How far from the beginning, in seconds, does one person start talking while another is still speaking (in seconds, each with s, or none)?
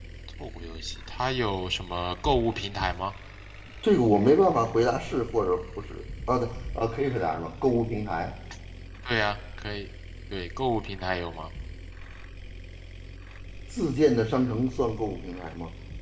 none